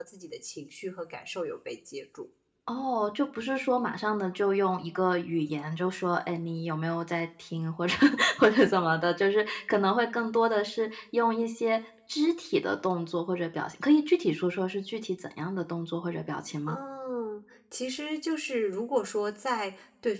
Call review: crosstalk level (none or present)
none